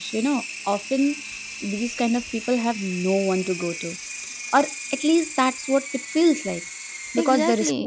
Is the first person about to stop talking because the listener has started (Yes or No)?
No